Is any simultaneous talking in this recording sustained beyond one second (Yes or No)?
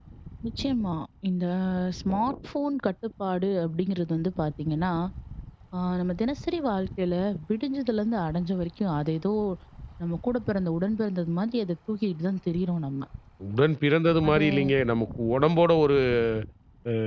No